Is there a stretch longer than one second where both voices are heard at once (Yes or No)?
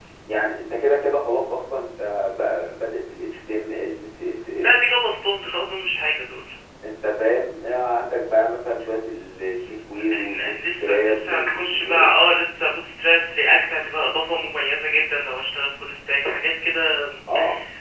Yes